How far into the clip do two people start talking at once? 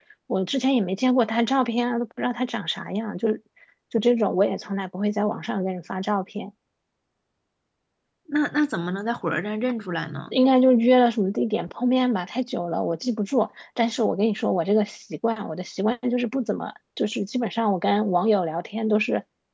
none

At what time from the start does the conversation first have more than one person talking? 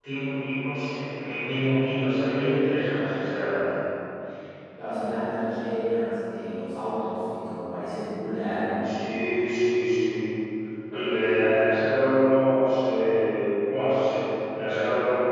none

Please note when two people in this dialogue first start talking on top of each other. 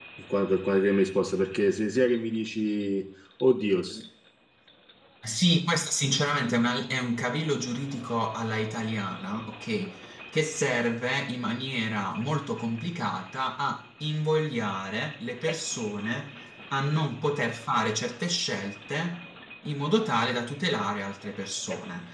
none

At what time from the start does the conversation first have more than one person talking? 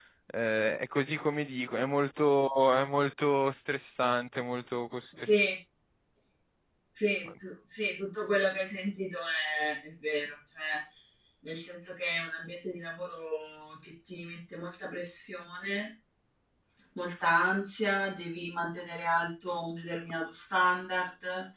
none

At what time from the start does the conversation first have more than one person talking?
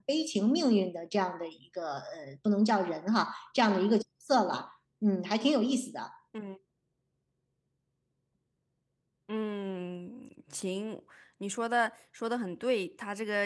none

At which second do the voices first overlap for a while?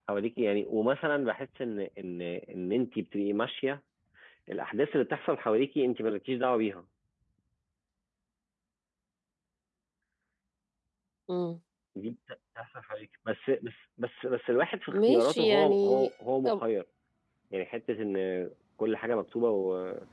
14.9 s

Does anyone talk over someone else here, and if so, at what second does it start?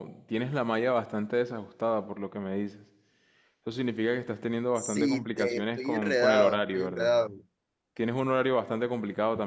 4.8 s

